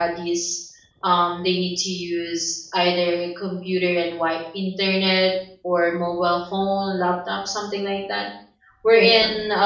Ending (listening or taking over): listening